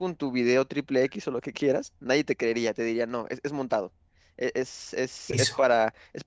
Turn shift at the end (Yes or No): No